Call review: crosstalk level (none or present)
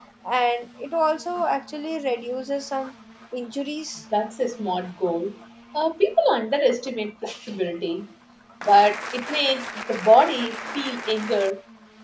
none